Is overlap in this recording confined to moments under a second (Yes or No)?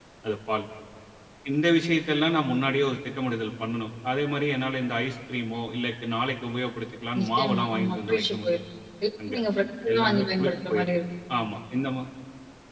No